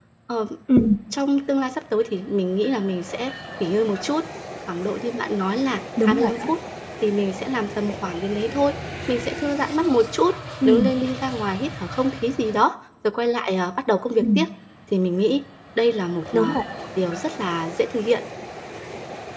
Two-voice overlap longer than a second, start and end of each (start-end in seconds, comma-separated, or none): none